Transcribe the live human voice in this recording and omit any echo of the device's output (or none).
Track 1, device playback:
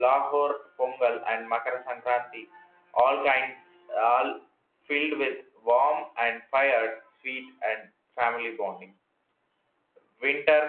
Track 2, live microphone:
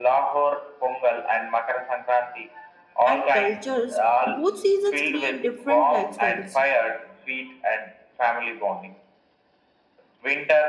and cultures, both seasons create different lifestyles.